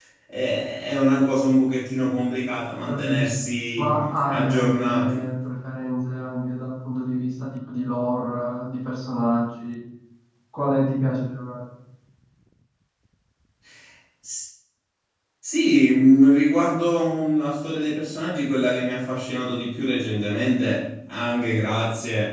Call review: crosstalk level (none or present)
present